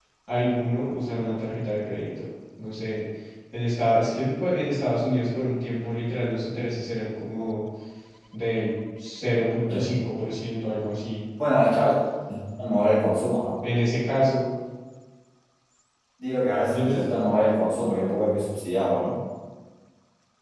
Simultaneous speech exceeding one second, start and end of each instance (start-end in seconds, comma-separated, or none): none